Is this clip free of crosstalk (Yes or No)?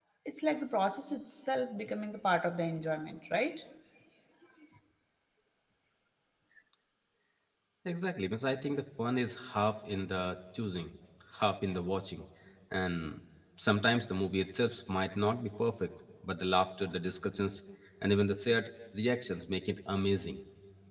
Yes